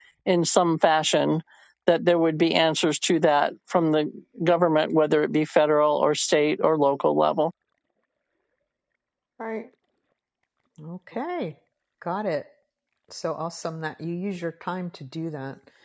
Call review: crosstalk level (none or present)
none